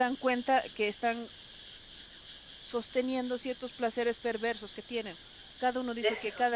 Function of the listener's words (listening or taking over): listening